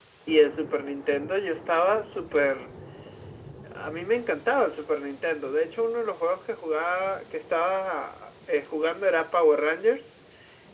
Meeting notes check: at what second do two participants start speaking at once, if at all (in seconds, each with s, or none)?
none